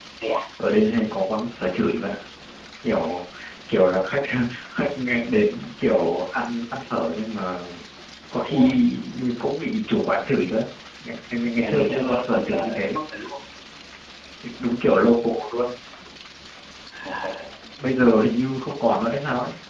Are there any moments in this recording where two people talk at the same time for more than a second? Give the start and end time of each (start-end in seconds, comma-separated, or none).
11.6-13.0